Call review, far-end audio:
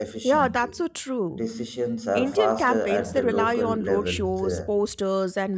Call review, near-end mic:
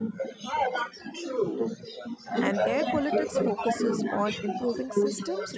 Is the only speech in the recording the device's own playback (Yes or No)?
No